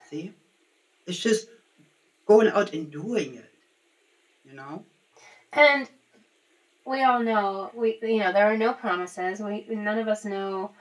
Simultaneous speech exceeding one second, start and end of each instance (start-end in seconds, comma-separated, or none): none